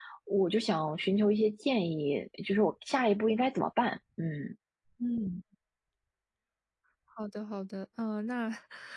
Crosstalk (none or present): none